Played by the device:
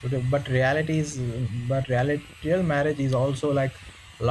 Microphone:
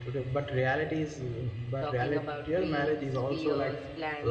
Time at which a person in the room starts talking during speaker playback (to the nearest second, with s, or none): 2 s